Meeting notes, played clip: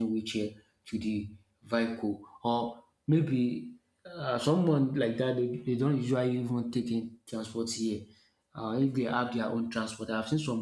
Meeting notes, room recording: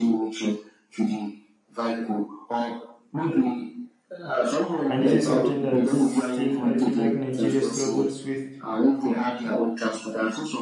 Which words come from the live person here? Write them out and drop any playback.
And this is something that still I feel like Nigeria struggles with.

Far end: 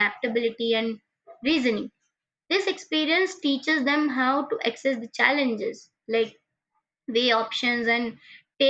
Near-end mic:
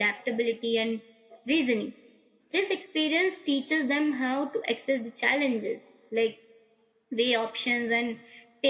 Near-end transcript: none

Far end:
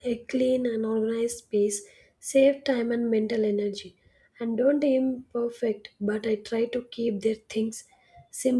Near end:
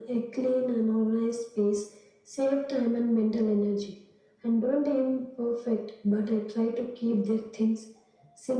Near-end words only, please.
none

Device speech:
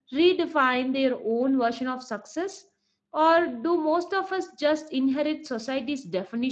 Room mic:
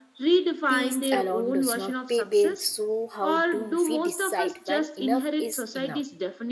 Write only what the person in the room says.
peace alone does not pay bills so how do we decide when enough is enough

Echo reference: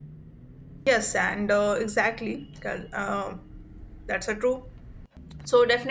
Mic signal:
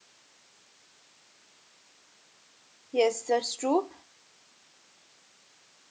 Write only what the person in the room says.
yes, that's true.

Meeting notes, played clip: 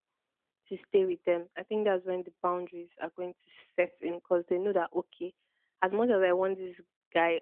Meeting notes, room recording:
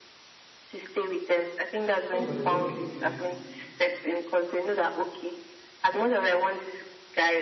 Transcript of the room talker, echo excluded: "Ah, how is my reward for being nice

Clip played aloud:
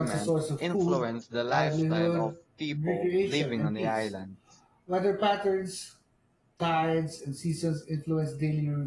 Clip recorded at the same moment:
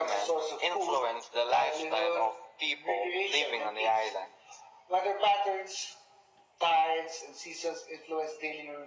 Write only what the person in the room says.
none

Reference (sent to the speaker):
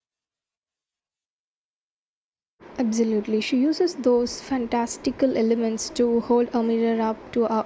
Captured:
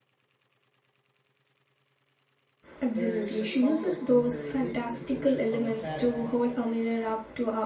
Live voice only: There's a comfort in her wit and social commentary.

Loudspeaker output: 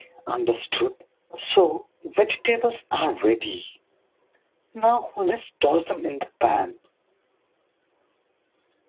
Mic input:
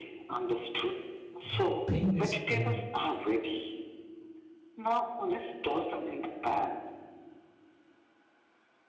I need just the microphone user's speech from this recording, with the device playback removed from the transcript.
but pain is pain.

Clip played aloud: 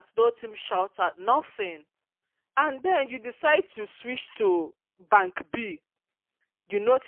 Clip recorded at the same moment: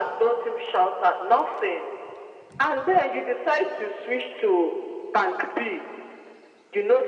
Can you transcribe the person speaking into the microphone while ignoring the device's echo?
none

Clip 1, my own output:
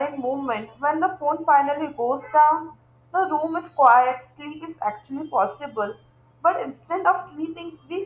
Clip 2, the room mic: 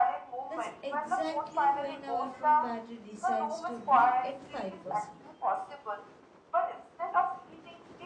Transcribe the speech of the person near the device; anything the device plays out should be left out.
that's exactly when our phone battery decides to be at 5%,

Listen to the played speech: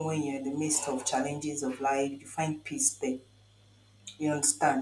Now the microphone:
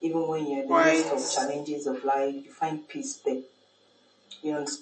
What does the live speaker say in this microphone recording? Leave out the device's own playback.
quite

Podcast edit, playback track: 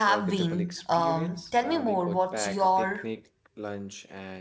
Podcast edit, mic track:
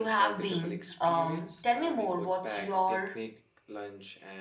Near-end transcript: none

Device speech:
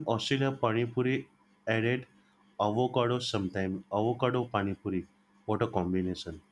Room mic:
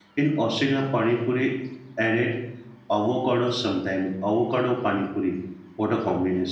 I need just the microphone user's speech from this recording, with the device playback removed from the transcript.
none

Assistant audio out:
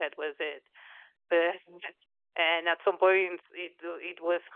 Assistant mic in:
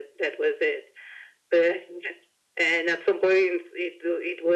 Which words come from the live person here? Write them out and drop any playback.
none

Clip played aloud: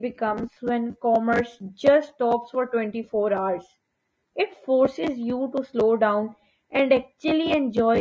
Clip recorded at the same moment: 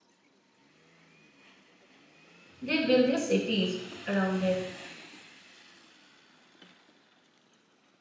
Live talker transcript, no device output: they build their cities around it.

